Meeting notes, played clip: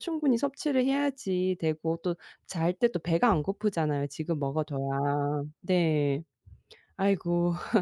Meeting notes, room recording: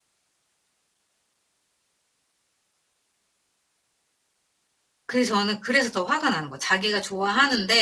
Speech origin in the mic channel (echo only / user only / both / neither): user only